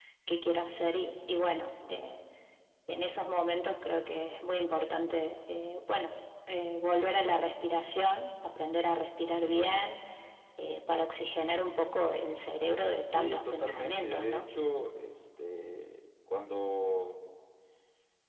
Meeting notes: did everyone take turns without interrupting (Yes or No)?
No